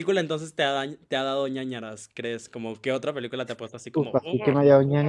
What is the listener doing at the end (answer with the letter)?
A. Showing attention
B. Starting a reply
B